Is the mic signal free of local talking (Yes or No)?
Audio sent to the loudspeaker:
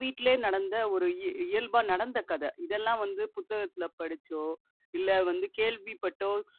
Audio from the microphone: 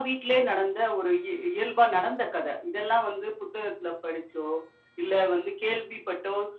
Yes